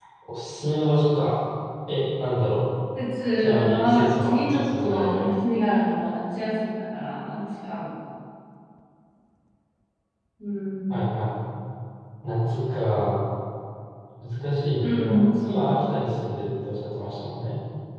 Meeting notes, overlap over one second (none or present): present